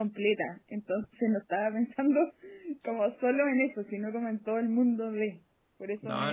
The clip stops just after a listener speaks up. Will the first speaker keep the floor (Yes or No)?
No